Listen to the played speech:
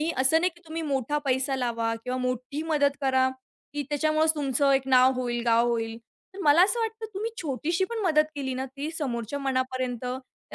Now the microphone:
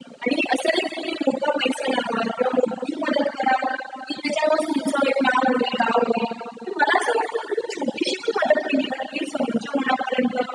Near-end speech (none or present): none